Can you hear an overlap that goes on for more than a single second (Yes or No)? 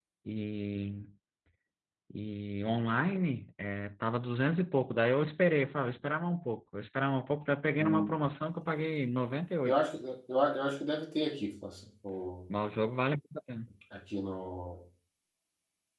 No